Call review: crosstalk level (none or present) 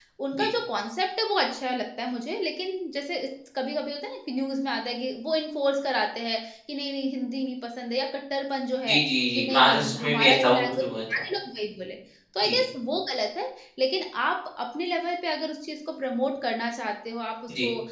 present